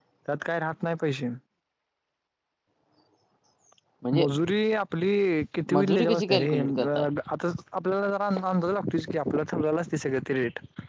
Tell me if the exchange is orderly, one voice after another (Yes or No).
No